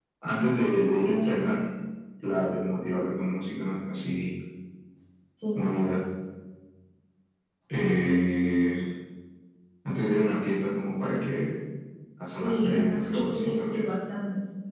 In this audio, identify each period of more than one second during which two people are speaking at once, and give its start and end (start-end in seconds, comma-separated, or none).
12.3-13.8